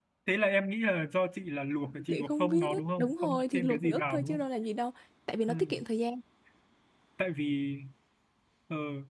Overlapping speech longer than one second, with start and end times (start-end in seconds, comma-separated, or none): 2.1-4.5